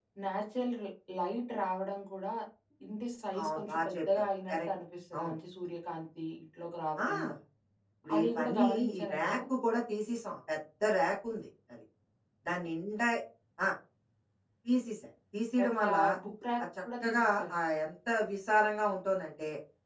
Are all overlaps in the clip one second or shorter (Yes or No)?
No